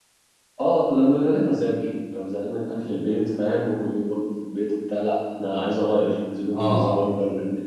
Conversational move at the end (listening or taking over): taking over